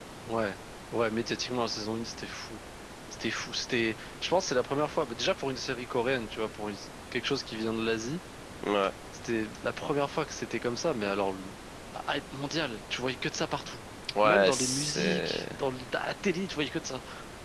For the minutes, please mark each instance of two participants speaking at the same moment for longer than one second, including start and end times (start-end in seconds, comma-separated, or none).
14.2-15.6